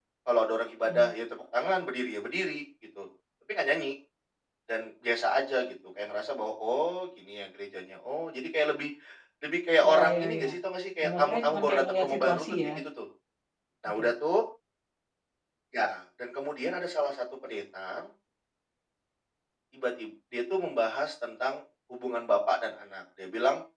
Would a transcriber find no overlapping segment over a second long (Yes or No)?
No